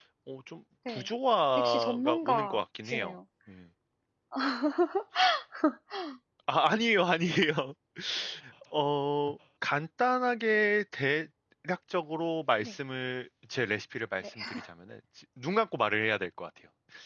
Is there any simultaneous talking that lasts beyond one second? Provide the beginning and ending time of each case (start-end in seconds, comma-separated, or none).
1.6-3.1